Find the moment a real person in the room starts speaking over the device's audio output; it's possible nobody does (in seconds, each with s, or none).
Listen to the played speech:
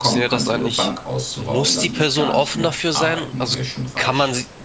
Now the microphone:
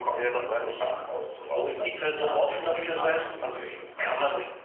none